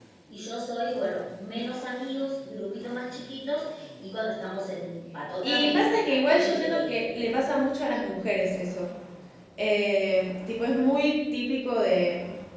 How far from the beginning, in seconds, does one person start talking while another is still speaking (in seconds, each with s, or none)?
5.4 s